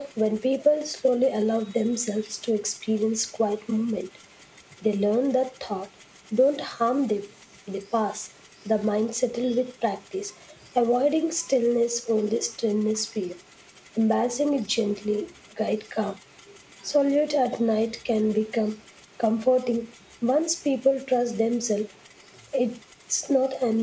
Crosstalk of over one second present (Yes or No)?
No